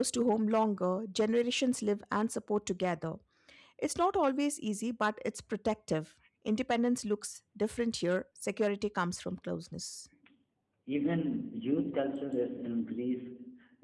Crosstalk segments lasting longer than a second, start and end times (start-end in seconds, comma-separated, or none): none